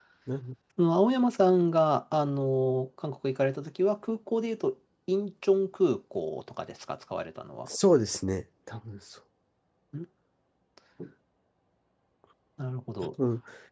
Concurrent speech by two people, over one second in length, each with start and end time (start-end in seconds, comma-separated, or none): none